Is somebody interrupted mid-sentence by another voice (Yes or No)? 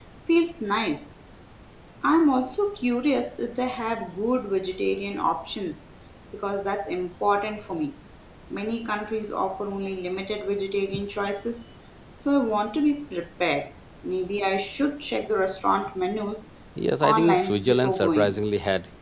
Yes